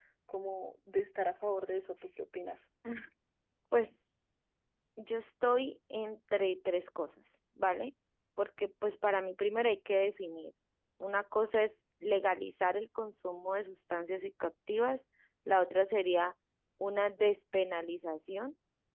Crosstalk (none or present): none